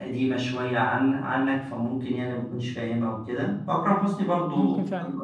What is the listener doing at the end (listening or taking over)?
listening